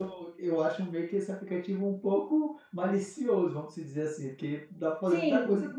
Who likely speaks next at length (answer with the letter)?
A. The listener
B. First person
A